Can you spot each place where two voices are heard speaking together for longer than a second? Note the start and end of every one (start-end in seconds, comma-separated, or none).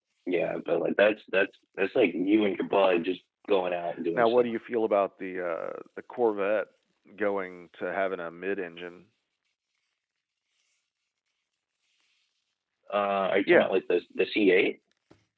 none